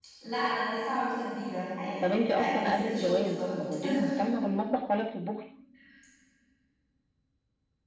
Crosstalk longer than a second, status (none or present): present